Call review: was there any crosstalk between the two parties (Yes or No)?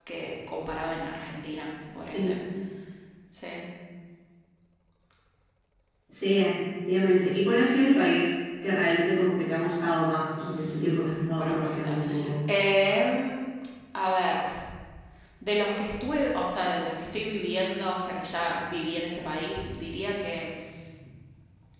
Yes